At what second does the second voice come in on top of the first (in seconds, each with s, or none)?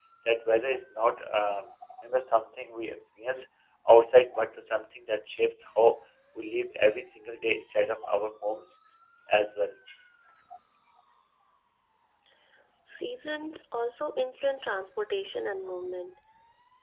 none